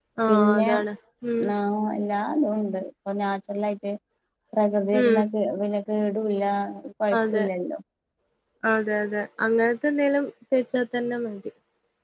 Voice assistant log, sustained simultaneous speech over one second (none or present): none